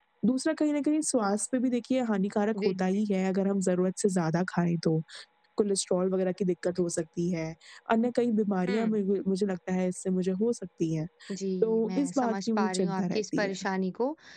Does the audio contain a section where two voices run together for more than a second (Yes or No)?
Yes